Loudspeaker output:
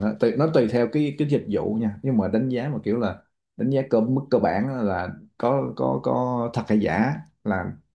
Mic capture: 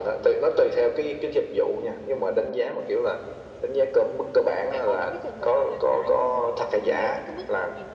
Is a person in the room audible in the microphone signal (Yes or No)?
Yes